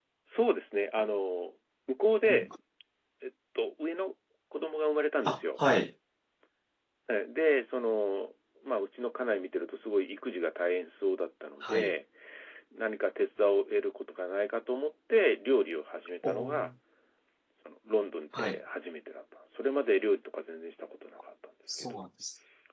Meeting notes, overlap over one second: none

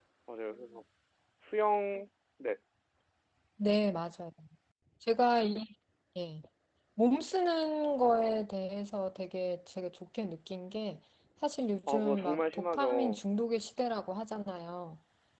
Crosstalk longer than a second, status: present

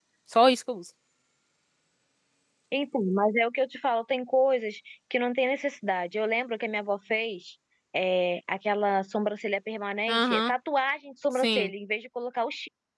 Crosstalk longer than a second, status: none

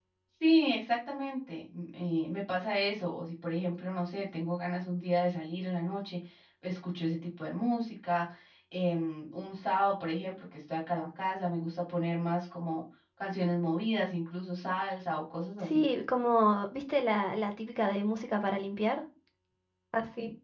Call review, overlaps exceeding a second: none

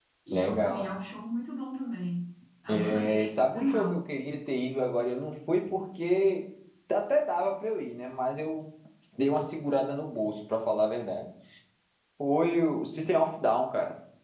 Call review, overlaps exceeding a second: present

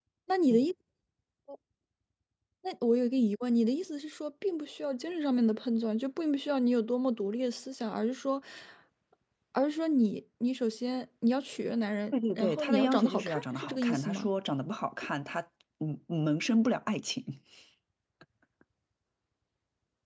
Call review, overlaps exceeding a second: present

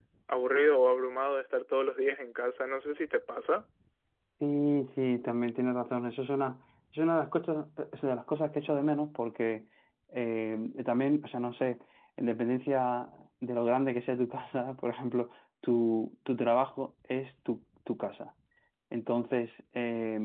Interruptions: none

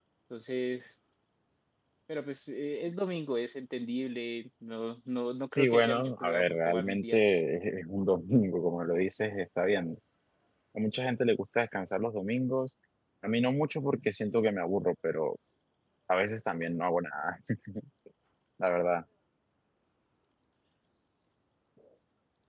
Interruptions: present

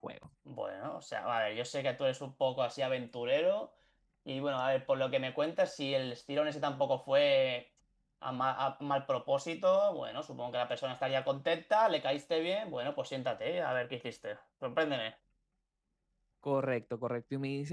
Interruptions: none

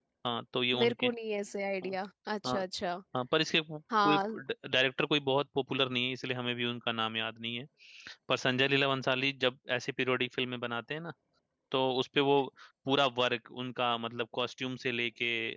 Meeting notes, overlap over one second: none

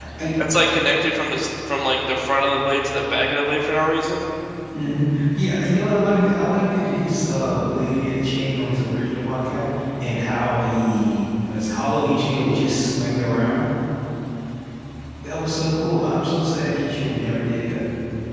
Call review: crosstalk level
none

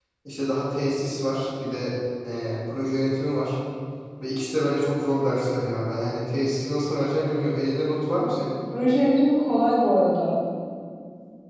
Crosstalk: none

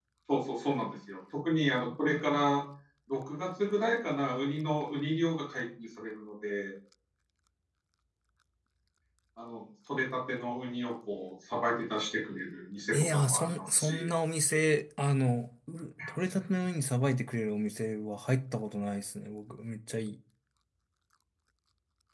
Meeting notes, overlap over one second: present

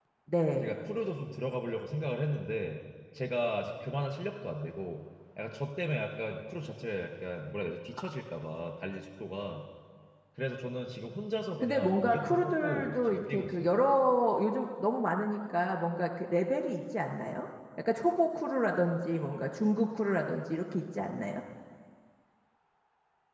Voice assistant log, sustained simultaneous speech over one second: present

